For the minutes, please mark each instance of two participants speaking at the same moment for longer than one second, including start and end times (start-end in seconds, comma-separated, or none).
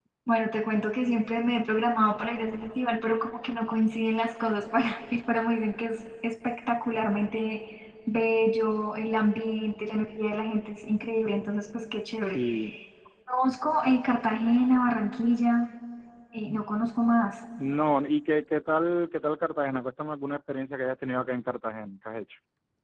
none